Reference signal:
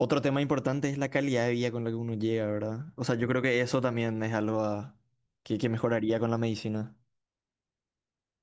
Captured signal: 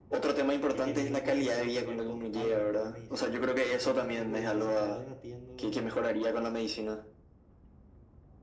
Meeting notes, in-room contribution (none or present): present